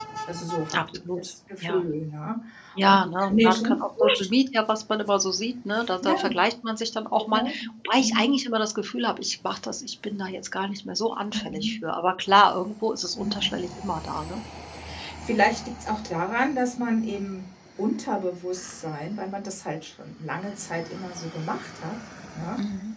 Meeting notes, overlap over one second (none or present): present